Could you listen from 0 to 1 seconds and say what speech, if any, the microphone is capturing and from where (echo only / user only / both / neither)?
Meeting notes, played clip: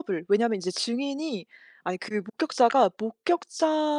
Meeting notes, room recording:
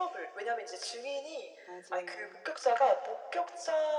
echo only